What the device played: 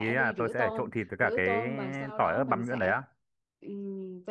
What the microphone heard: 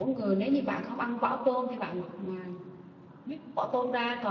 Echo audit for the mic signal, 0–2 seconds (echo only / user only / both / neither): user only